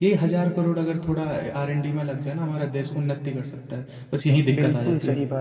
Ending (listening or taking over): taking over